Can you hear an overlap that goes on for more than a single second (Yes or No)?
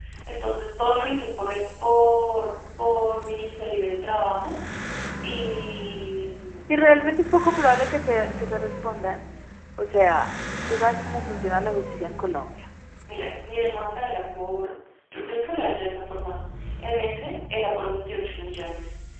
No